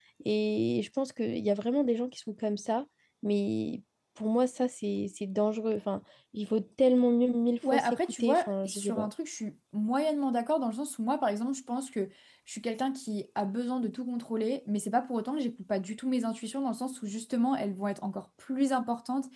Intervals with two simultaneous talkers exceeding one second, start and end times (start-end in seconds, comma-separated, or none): 7.7-9.1